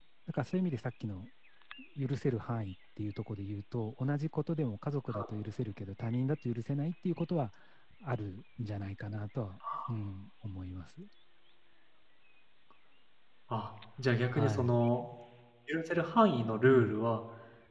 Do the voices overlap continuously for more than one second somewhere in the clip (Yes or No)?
No